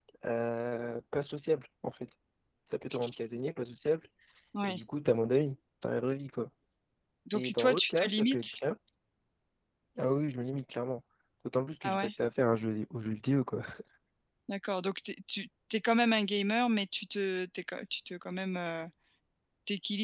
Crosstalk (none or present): present